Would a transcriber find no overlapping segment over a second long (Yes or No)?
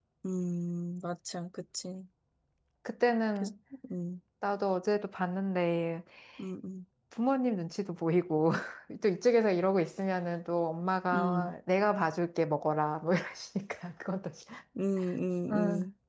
Yes